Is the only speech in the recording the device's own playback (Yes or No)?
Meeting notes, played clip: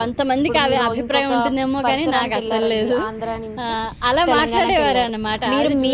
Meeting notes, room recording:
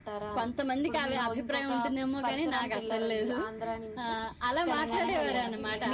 No